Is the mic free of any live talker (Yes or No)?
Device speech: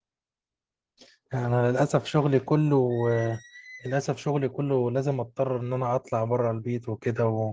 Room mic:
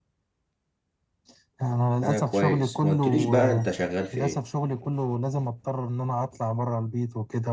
No